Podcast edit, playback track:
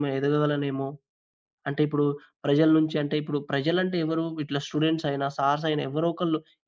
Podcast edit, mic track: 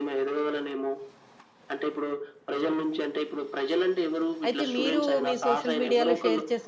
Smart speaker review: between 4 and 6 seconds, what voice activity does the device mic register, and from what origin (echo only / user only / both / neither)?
both